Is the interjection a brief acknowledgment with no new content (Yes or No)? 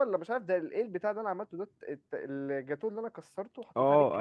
No